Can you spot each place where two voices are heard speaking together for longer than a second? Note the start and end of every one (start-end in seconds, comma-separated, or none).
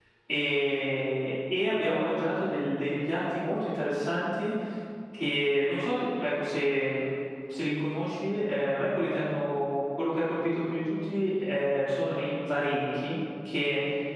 none